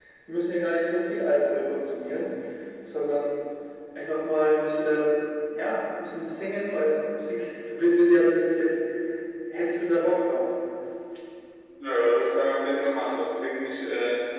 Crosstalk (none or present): none